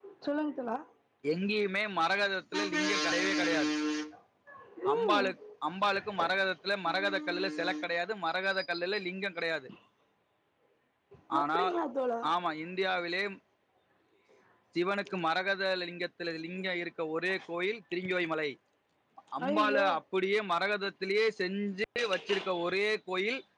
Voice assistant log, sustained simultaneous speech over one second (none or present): none